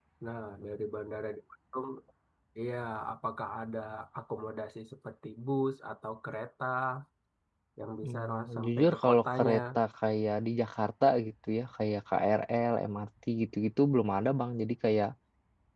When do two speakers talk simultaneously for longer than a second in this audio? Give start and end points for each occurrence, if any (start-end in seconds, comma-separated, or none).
8.0-9.6